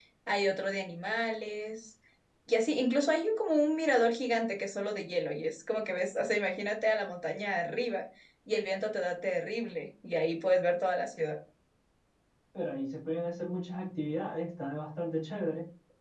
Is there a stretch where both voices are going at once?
No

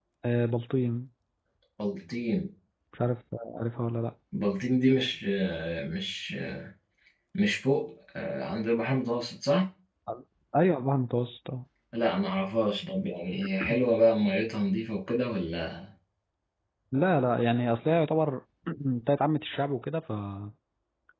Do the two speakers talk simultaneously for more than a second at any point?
No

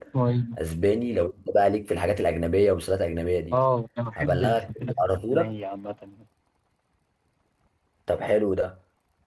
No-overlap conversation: No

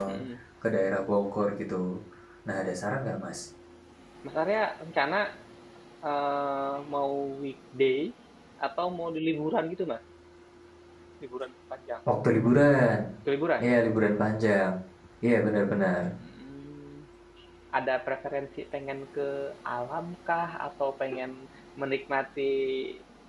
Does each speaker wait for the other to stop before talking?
Yes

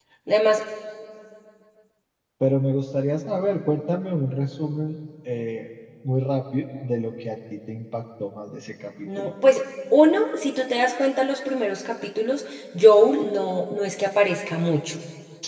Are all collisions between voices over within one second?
Yes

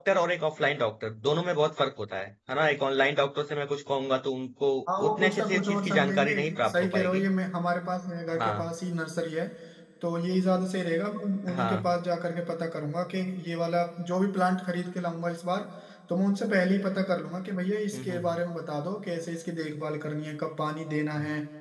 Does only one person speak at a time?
No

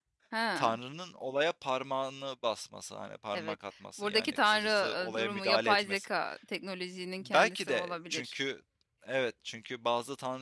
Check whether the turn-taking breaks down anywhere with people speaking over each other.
Yes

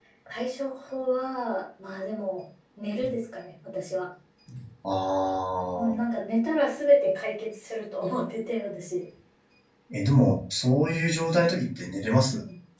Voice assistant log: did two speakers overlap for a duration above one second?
No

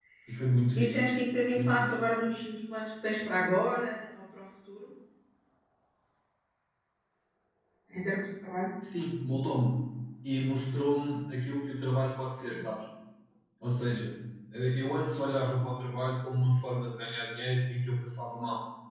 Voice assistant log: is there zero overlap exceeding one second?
Yes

